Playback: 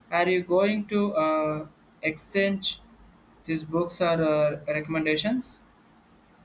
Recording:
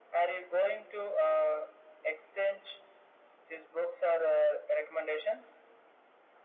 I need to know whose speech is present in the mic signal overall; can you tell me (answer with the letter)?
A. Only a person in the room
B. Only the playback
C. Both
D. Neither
B